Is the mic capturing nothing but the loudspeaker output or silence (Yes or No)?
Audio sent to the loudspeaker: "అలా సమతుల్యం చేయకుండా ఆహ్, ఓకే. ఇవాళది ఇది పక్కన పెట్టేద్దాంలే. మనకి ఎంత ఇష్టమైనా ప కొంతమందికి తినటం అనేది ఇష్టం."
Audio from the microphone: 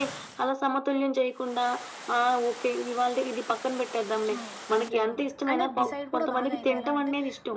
No